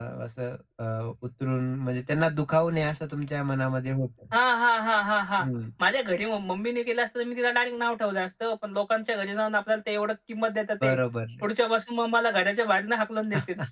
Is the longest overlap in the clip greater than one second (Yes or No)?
No